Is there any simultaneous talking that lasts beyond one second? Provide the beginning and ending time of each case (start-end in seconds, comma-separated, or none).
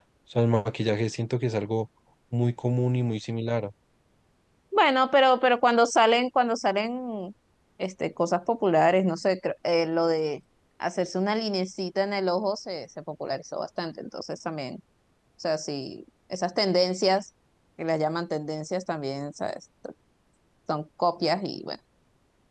none